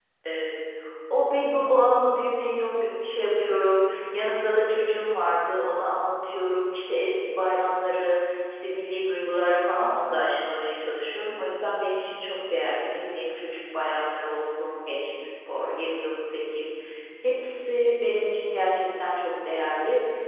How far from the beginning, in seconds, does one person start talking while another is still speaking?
none

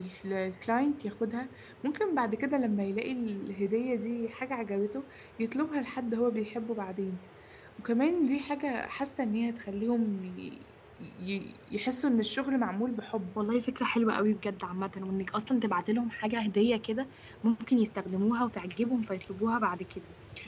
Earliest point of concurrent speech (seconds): none

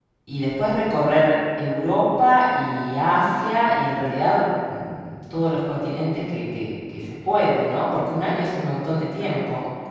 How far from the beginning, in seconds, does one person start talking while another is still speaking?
none

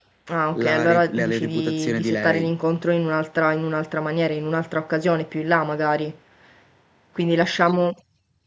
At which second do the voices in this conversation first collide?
0.5 s

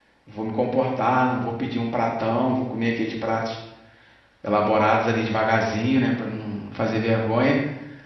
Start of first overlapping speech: none

